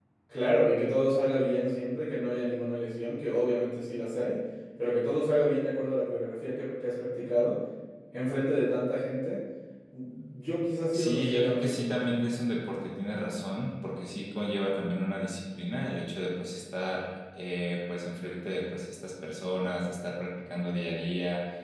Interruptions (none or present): present